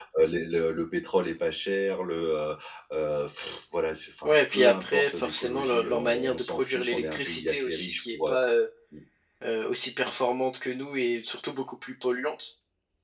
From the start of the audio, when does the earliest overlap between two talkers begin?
4.2 s

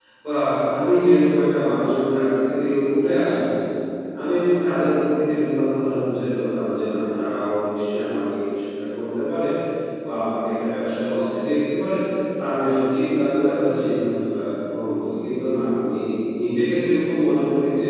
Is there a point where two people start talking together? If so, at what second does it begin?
none

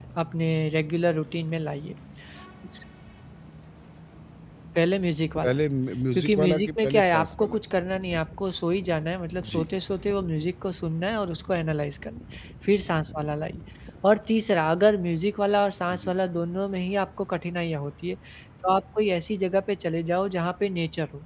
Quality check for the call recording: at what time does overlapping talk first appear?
6.2 s

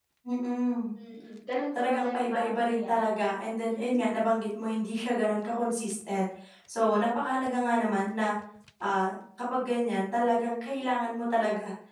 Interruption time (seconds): 1.8 s

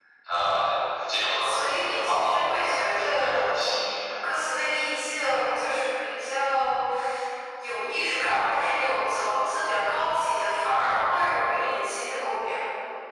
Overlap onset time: 1.4 s

